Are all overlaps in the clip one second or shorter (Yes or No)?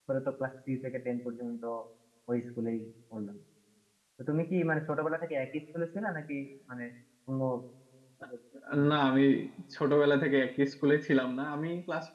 Yes